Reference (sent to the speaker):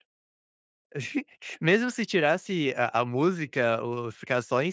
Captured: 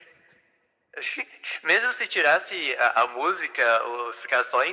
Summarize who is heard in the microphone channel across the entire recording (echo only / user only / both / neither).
echo only